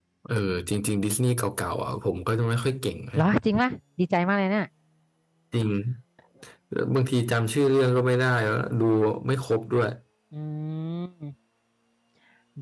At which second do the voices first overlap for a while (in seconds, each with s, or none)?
none